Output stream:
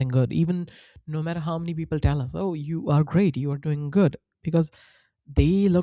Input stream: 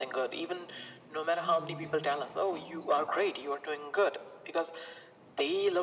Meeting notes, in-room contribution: present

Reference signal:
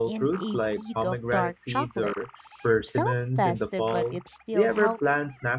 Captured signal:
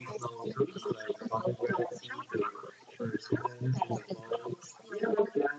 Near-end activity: none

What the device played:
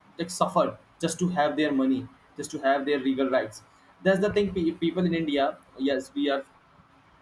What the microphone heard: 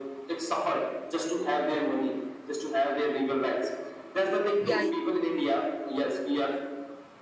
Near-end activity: present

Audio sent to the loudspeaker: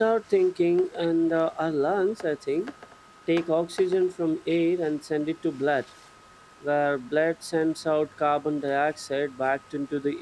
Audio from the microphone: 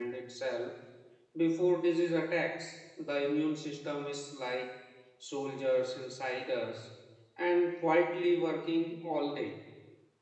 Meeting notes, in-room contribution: present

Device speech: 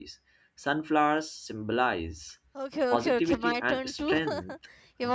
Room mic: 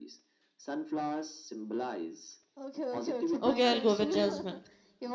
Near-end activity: present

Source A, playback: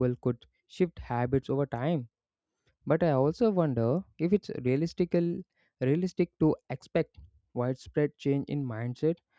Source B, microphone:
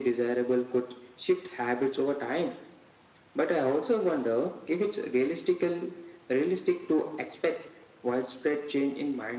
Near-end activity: none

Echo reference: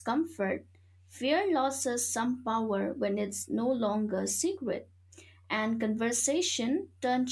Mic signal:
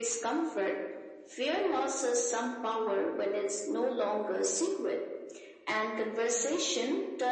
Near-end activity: none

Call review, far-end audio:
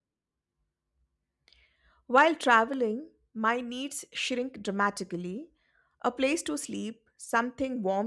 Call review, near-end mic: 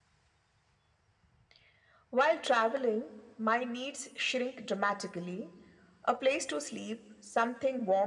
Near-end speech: none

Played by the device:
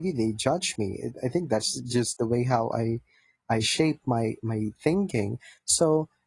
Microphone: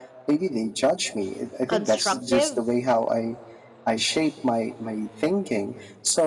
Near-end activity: present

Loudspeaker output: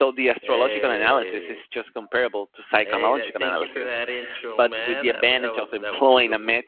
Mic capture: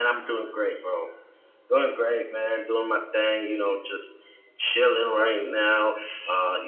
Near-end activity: present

